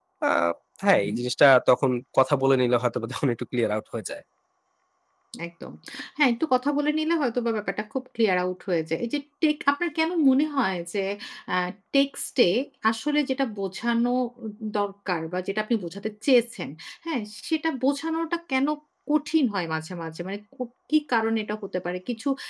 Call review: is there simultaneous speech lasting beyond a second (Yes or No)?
No